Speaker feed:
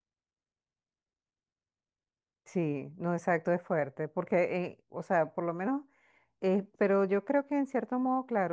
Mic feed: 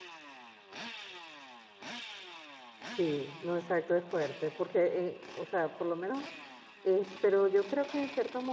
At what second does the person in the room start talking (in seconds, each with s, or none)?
none